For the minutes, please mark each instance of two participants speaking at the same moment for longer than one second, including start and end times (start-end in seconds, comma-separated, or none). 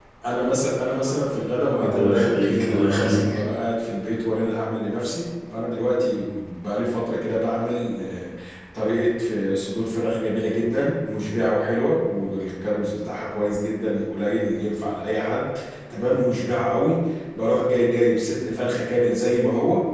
1.8-3.4